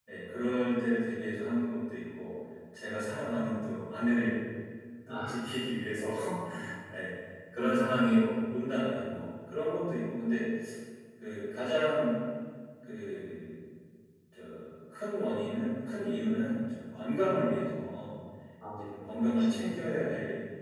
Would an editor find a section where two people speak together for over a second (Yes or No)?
Yes